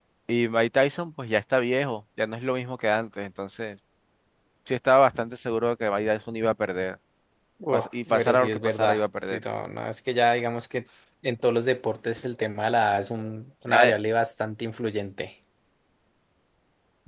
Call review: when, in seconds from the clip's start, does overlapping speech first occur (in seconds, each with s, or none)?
7.7 s